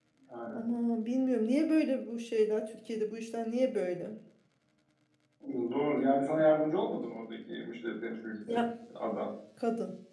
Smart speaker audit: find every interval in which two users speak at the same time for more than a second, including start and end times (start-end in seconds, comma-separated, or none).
none